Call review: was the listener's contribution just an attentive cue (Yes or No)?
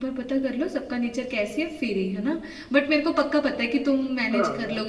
Yes